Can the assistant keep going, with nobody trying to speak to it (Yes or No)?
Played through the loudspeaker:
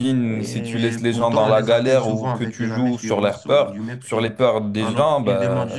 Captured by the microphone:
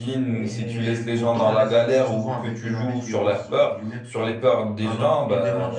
Yes